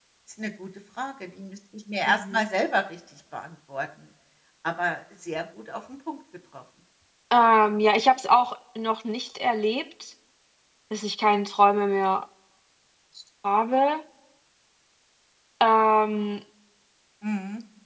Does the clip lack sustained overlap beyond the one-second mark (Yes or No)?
Yes